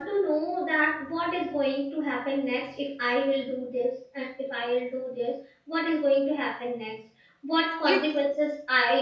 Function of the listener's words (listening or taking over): listening